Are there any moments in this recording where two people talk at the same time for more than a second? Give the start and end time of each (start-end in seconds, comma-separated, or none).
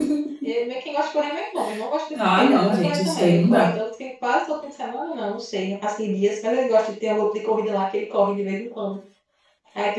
2.1-3.7